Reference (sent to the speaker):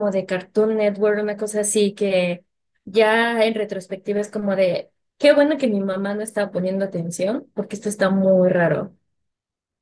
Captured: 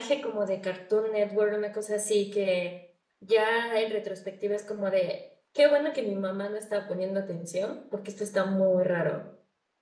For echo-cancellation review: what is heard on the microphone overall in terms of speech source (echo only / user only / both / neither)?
echo only